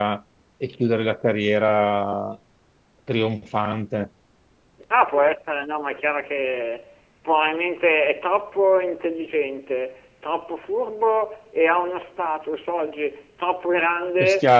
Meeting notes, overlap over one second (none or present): none